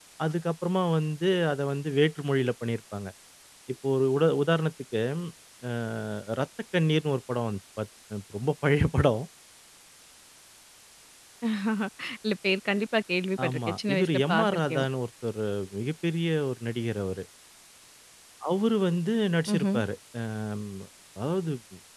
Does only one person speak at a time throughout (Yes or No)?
No